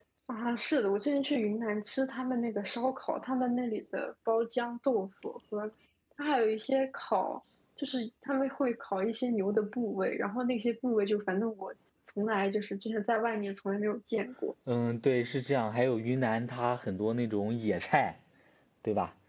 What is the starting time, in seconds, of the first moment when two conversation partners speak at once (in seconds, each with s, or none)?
none